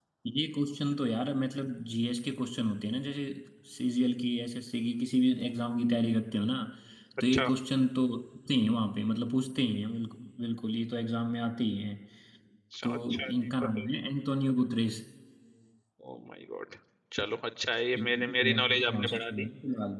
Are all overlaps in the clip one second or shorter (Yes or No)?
No